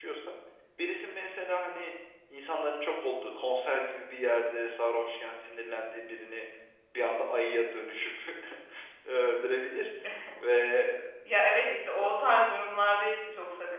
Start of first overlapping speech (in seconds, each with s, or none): none